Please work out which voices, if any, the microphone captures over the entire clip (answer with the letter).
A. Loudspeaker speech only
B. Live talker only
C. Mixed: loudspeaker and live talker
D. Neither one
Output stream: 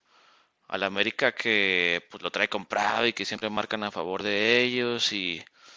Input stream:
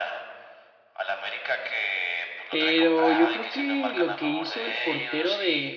C